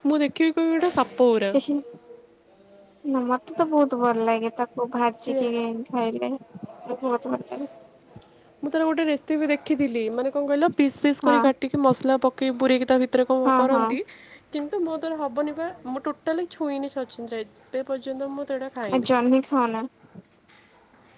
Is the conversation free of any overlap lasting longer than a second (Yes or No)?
Yes